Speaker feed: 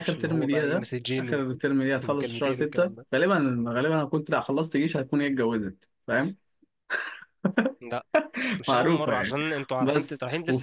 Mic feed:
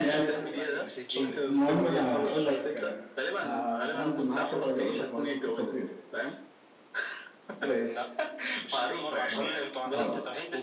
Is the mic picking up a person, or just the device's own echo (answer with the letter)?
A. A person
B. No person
A